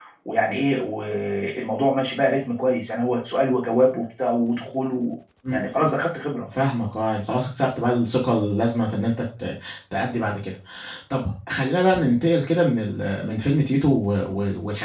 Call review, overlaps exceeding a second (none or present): none